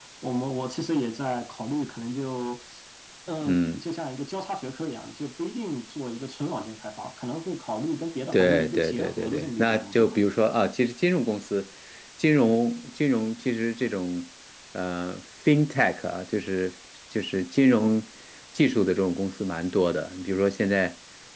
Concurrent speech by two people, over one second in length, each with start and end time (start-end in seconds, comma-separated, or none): 8.3-10.1